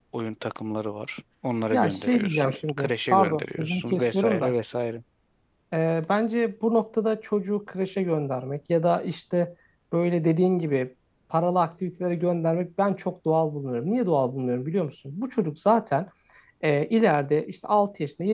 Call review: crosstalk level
present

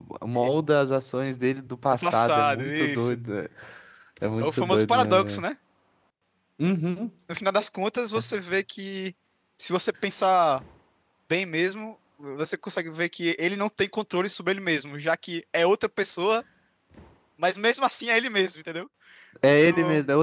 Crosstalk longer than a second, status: present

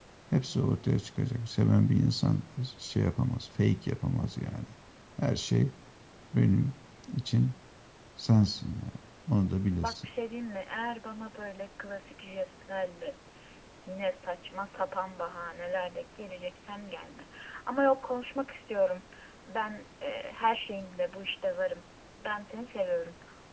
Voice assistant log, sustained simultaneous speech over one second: none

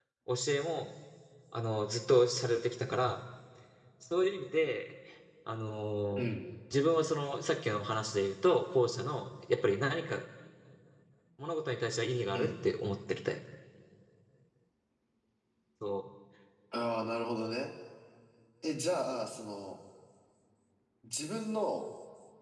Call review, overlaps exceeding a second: none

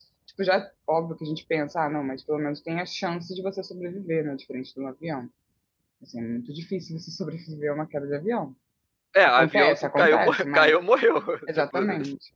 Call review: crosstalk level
present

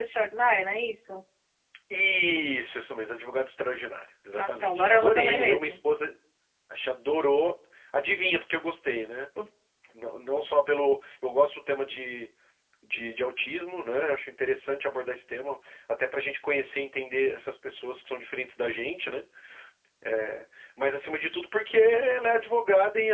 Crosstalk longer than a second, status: present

